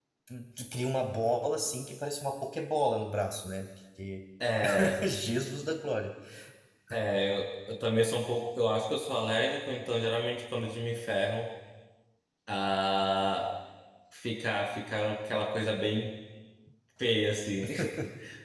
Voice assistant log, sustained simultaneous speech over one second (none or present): none